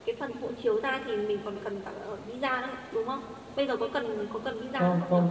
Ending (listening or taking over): taking over